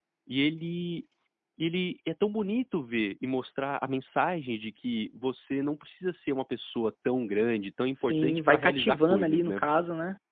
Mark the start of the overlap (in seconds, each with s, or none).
8.0 s